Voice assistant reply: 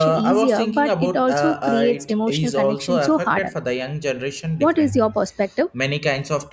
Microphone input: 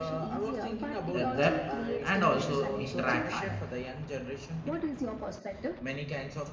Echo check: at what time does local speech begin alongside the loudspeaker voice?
1.2 s

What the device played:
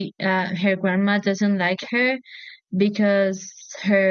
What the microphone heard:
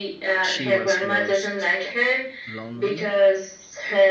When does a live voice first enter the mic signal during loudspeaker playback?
0.4 s

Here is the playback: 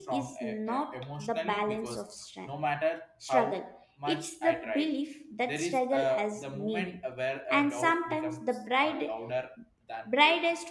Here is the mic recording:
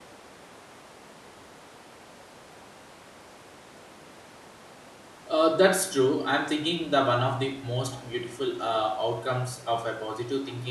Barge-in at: 5.3 s

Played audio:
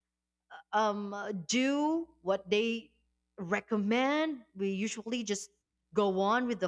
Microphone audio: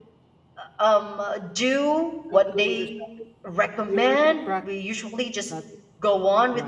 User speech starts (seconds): 2.3 s

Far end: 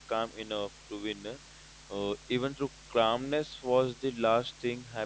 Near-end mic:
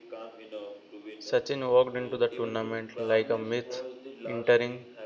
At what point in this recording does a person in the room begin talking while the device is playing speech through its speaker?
1.2 s

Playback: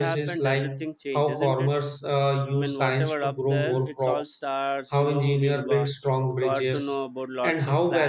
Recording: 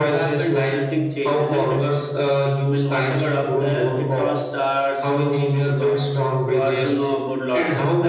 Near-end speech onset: none

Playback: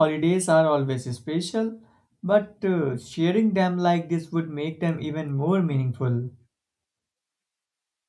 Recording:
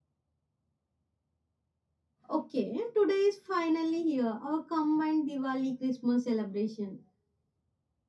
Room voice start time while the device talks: 2.3 s

